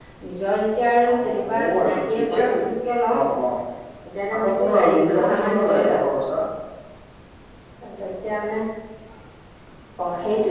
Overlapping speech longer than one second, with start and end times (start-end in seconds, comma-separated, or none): 1.1-2.6, 4.3-6.0